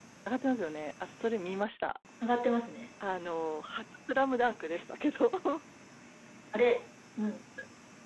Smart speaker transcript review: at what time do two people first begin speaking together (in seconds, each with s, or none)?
none